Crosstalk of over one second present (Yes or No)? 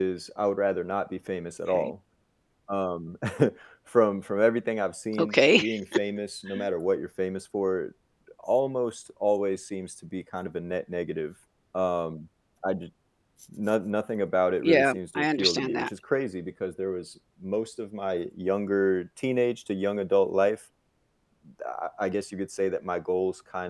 Yes